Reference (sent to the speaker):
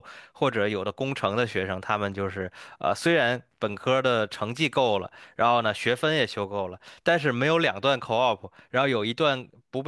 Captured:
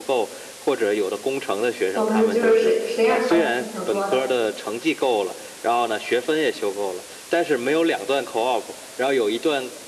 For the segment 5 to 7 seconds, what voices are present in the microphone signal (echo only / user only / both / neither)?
echo only